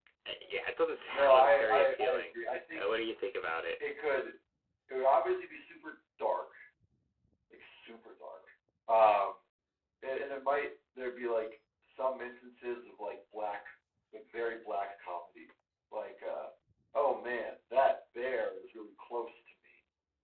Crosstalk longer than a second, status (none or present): present